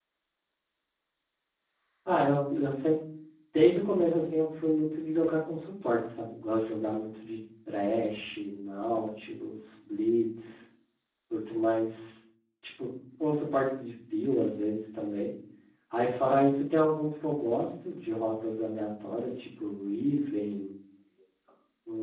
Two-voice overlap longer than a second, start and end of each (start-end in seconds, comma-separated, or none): none